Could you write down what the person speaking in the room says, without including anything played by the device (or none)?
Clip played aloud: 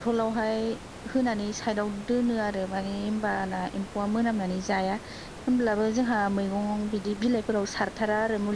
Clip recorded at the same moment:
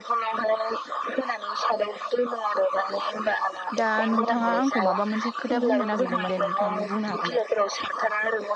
दा नोंथाङा आंखौ माबा मोनसे एसे खोथा बुंनो नागिरदोंमोन दे नोंथां बुंनो हागोन दे